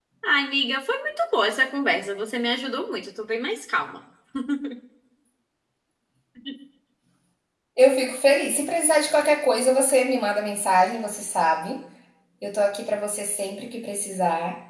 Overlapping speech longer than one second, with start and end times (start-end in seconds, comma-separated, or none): none